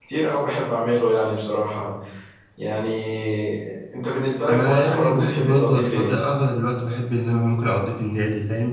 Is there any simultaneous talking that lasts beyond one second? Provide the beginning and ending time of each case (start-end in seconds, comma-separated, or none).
4.5-6.1